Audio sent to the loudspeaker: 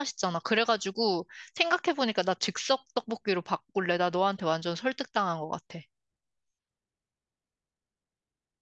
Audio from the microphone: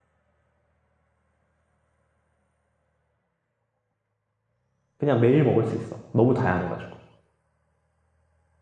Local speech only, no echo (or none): 그냥 매일 먹을 수 있어. 너무 다양해가지고.